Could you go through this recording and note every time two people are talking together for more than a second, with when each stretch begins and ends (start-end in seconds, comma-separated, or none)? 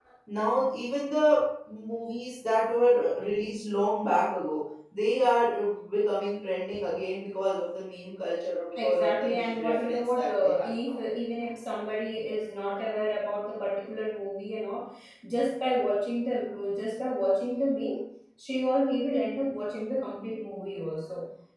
8.8-11.0